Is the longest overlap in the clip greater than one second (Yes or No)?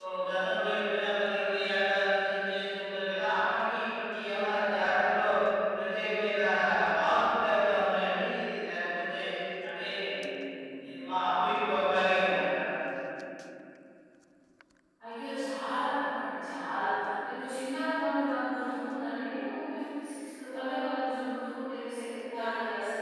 No